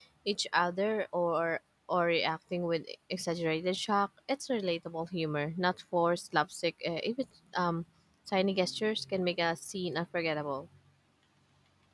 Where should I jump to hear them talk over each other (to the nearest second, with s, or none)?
none